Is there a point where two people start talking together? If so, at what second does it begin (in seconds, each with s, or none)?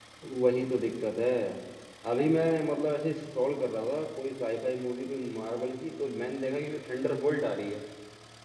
none